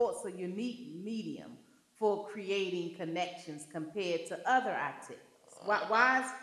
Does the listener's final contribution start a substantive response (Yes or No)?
No